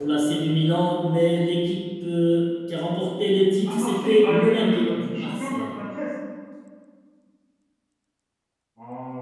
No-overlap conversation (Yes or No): No